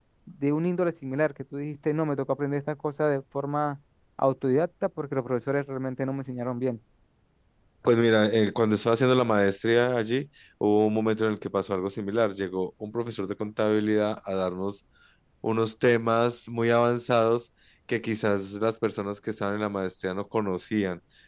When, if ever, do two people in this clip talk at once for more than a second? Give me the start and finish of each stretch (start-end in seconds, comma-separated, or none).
none